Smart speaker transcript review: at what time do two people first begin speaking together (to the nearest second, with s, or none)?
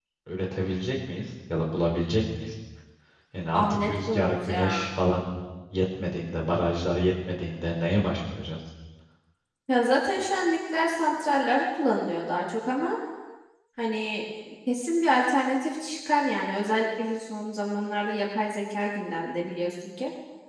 4 s